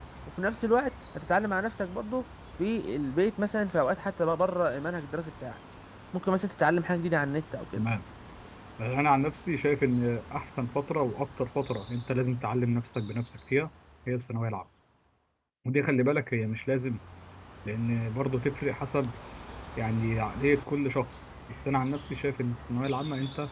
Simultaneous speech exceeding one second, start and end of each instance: none

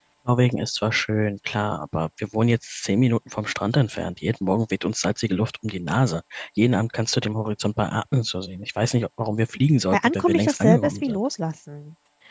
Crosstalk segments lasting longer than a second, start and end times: 9.8-11.2

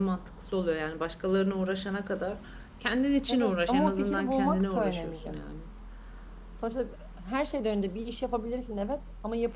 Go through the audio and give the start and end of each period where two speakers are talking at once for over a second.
3.3-5.4

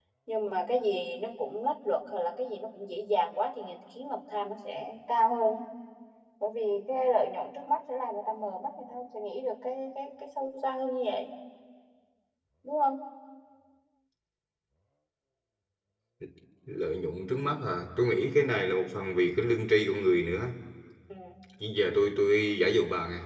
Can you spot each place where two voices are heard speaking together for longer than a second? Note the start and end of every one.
none

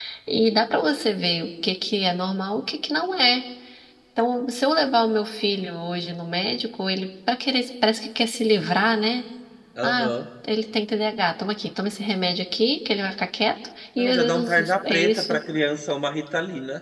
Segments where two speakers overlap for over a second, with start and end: 14.0-15.4

